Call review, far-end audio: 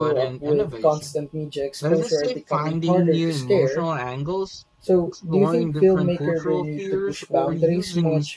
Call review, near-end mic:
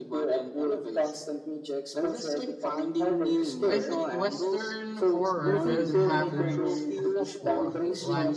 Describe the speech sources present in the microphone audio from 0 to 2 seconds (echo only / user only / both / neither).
echo only